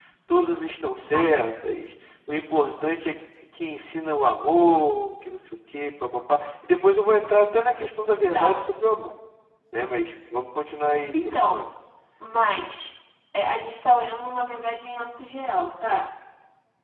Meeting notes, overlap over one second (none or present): none